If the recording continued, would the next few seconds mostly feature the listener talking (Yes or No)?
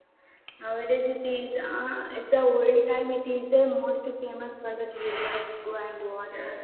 No